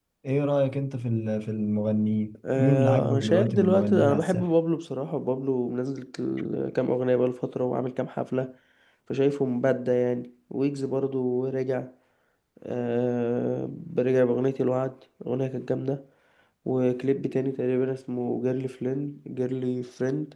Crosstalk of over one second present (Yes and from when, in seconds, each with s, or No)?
Yes, from 2.4 s